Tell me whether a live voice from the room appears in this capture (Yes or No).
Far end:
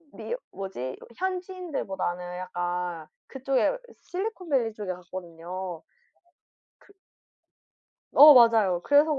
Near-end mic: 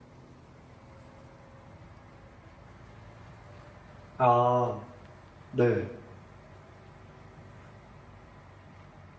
Yes